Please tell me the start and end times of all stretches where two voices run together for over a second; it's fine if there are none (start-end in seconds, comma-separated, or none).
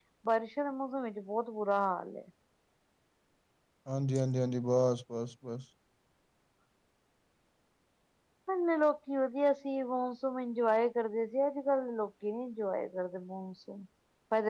none